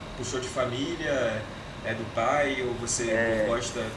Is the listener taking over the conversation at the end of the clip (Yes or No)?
No